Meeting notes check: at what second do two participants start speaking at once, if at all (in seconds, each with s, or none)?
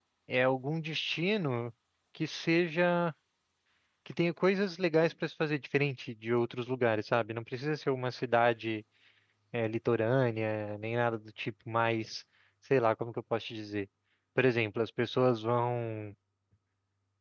none